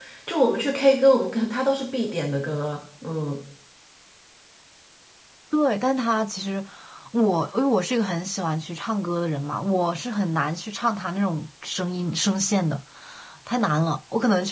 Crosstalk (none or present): none